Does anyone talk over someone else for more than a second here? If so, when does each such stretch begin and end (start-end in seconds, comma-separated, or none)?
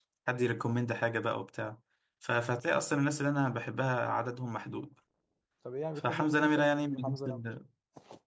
6.0-7.2